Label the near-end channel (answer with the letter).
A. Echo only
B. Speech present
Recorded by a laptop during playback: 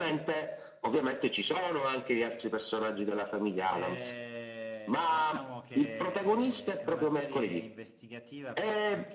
B